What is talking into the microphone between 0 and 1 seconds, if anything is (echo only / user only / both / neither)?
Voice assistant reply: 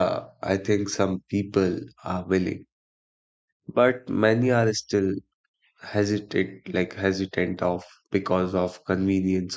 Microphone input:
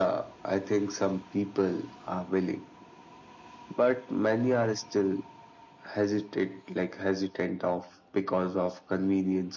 echo only